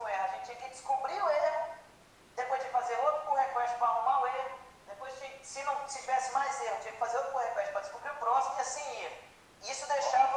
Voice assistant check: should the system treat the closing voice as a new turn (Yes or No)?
No